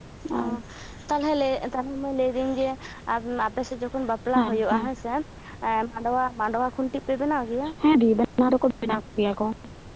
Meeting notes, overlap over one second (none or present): none